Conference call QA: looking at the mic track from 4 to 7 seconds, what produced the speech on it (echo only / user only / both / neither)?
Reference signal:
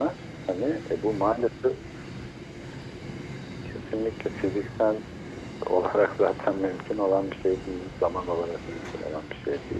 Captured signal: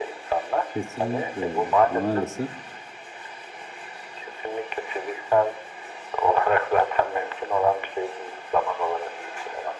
echo only